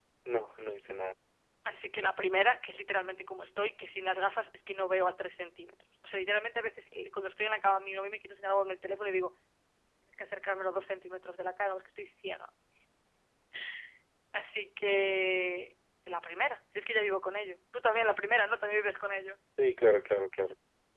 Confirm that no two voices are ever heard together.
Yes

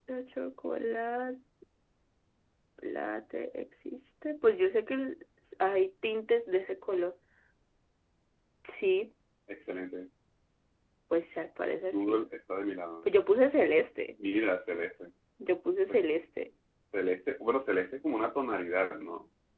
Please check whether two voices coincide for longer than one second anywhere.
No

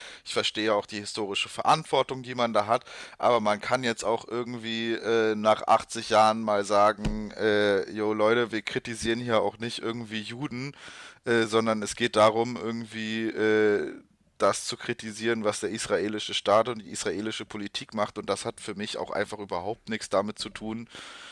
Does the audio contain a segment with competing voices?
No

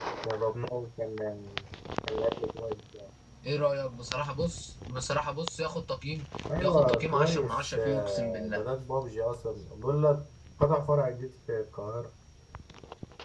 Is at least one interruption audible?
Yes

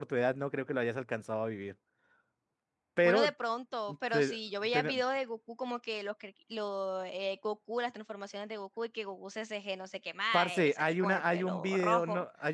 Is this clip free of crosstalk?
No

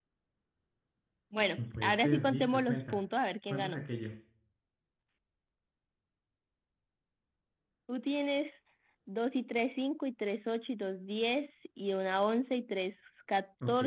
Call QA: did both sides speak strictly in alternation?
No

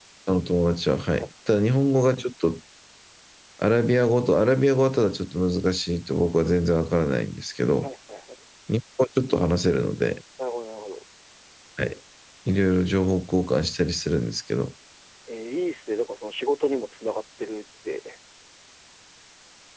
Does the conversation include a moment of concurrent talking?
No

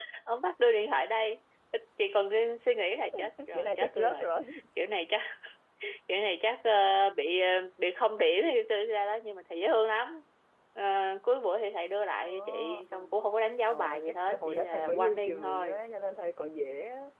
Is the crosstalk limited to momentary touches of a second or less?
No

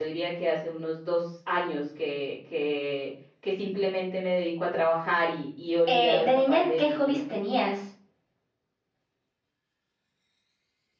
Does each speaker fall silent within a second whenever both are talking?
No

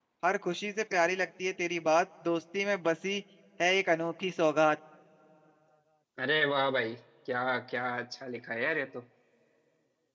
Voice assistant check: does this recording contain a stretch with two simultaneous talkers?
No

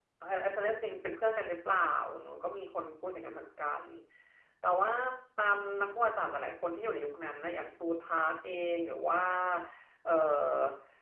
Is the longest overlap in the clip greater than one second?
No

